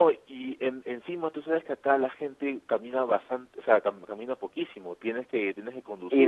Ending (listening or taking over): taking over